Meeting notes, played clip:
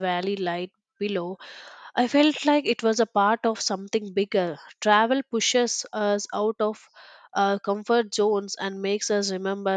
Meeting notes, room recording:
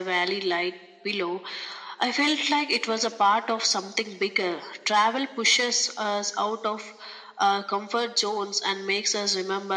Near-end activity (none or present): none